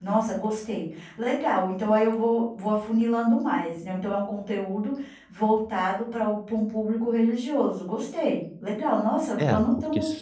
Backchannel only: No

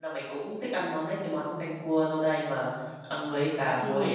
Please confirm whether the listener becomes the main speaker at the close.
Yes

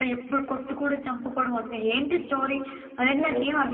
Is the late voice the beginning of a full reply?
Yes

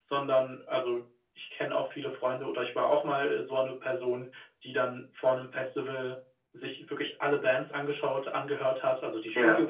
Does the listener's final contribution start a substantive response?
No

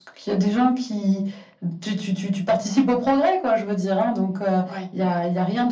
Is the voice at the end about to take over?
No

